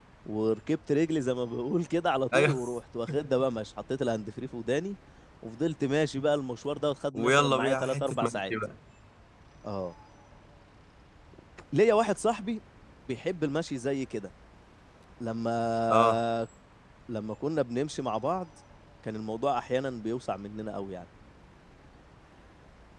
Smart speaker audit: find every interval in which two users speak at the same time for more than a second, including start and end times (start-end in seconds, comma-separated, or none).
7.1-8.5